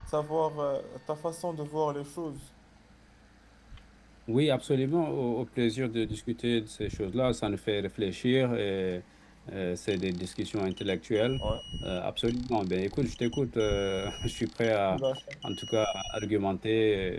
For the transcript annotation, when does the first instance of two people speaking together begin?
none

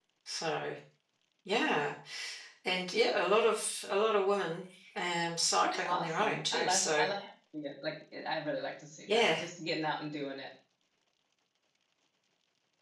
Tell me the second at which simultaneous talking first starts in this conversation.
5.6 s

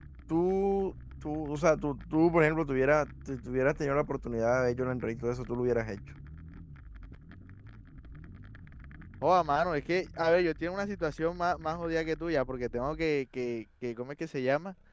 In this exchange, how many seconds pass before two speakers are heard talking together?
none

